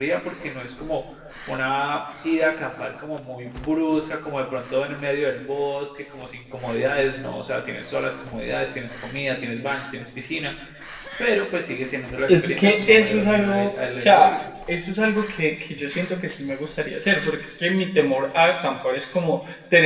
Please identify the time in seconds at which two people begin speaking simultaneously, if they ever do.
12.3 s

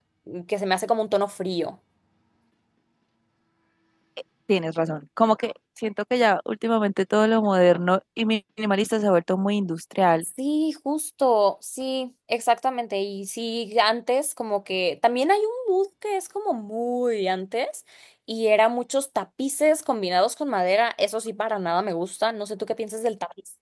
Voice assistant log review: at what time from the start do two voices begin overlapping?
none

